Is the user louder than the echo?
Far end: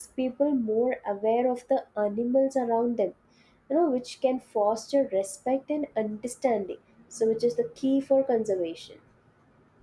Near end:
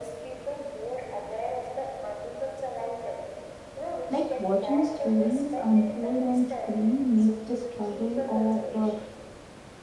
Yes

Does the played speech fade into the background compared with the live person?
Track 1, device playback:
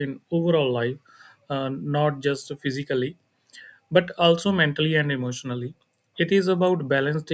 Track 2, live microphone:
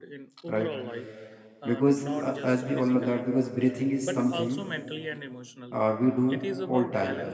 Yes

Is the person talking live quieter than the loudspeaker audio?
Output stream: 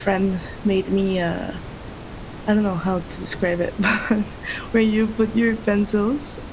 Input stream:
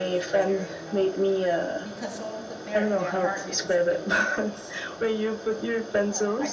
Yes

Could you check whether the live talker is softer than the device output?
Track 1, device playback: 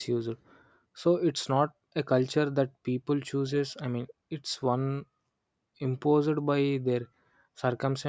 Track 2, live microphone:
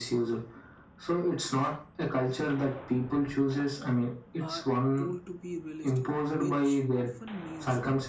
Yes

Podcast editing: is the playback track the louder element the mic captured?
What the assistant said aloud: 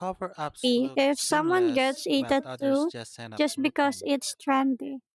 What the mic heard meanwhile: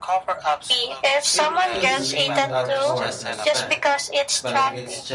Yes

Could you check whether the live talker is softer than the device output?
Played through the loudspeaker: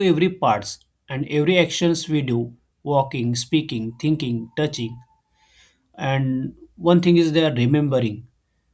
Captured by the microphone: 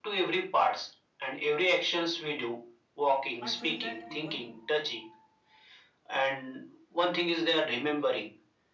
Yes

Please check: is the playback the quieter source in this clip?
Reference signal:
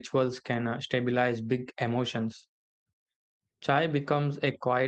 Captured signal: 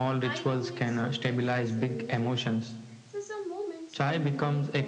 No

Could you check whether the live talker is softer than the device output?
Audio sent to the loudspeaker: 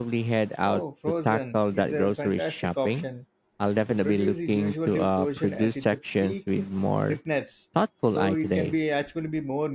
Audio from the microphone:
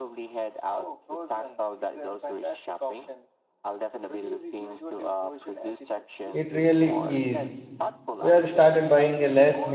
No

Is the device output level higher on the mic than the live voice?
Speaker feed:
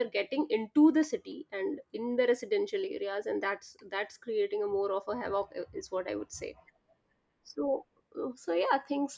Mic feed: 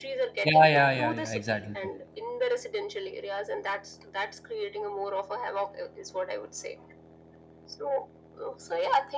No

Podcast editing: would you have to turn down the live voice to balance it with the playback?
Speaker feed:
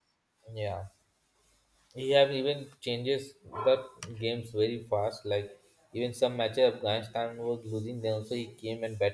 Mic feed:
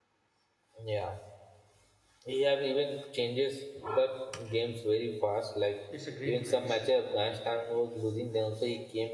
No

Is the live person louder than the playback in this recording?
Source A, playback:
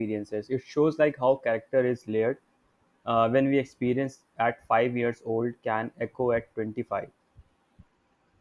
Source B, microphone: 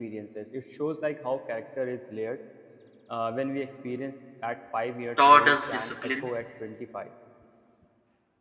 Yes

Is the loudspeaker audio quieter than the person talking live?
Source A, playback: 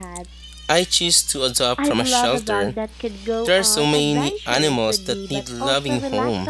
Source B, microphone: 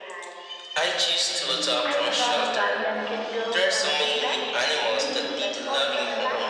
No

